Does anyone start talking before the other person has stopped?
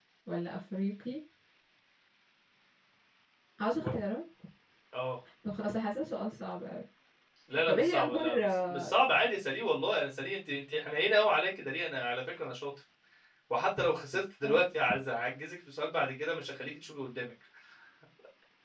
Yes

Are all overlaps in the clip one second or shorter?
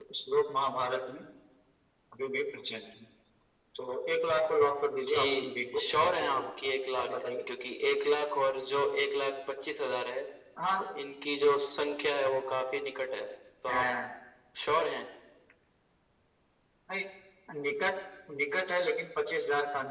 No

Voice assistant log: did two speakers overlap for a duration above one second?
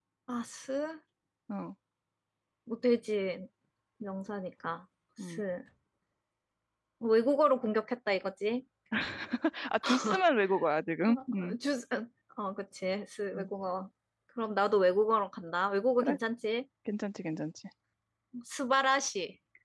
No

